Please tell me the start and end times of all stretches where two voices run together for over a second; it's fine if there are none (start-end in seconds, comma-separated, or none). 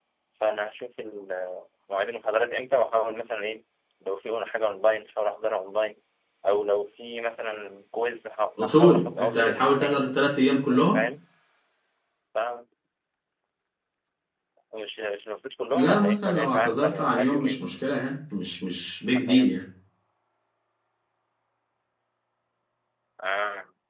8.6-10.1, 15.7-17.6